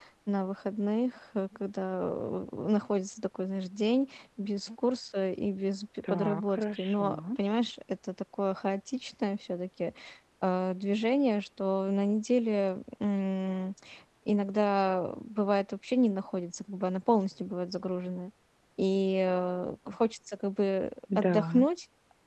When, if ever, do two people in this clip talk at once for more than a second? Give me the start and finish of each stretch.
6.1-7.4

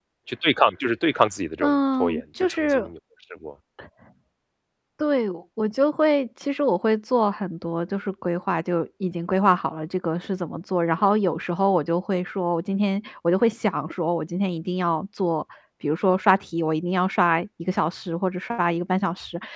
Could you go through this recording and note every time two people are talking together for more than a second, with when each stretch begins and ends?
1.6-2.9

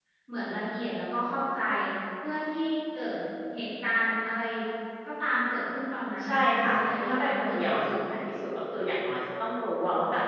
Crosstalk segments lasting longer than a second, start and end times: 6.2-7.8

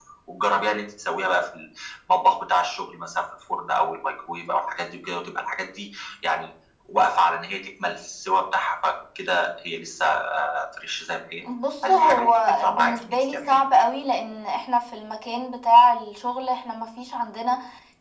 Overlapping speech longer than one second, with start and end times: 11.9-13.6

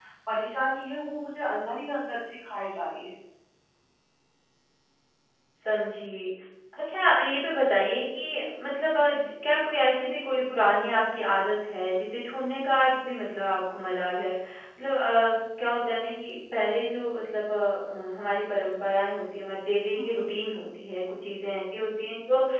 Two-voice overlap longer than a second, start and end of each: none

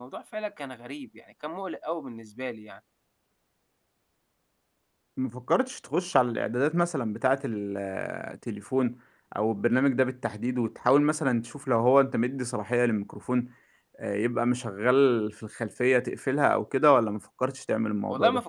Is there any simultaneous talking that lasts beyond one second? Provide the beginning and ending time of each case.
none

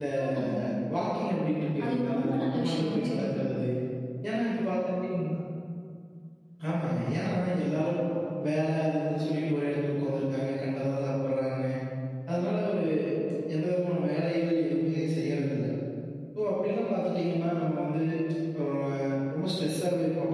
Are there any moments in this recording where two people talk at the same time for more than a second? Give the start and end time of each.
1.8-3.2

